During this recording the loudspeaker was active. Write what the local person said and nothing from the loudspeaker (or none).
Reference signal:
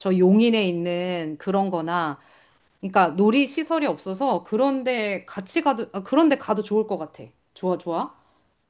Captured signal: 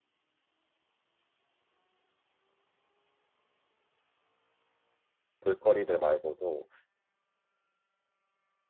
볼거리들 말고도,